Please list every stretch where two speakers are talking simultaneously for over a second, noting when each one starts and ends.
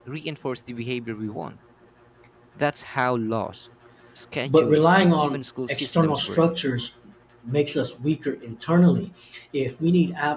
4.5-6.4

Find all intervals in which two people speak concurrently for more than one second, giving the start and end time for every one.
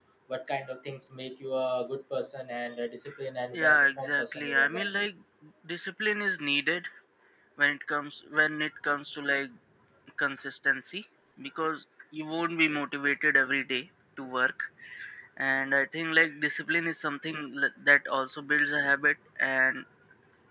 3.5-4.9

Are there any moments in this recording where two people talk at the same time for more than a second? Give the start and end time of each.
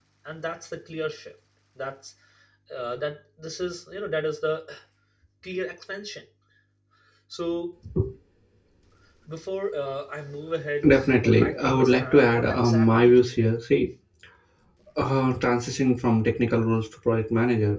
10.9-13.3

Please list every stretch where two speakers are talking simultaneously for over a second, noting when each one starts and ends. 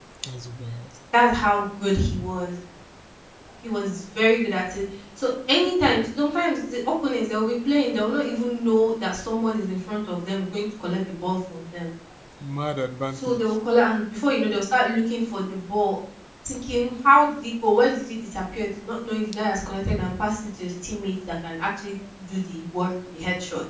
none

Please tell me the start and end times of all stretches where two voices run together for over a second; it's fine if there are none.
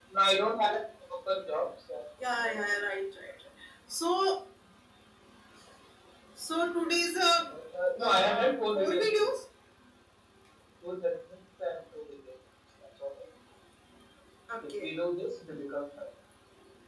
8.0-9.3

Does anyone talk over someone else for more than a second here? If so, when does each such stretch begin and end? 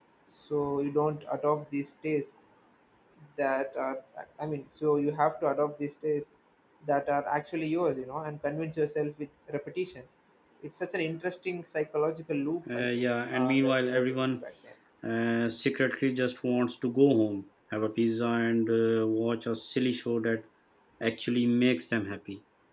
12.7-14.4

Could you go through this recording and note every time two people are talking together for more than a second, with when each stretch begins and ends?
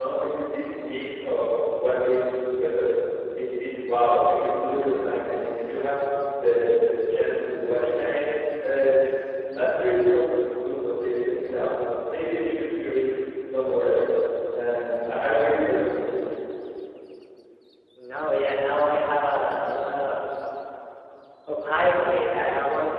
none

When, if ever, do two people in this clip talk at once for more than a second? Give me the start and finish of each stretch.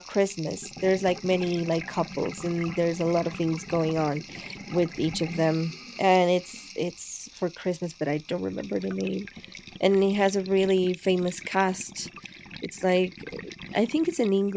none

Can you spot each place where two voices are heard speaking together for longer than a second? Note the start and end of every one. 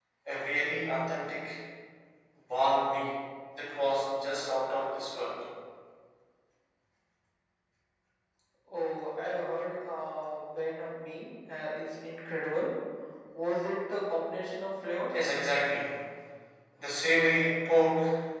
none

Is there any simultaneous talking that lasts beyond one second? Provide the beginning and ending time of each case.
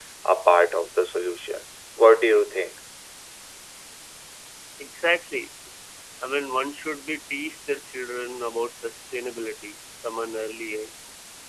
none

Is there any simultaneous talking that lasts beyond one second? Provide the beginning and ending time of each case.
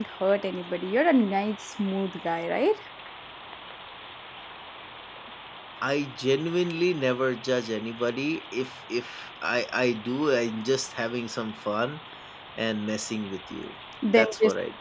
none

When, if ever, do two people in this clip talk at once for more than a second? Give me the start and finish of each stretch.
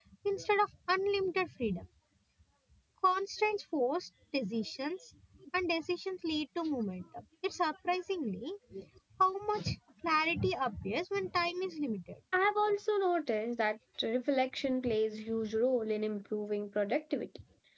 none

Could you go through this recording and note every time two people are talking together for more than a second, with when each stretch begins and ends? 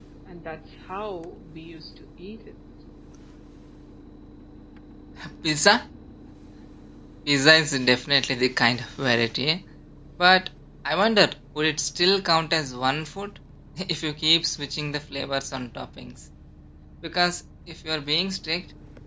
none

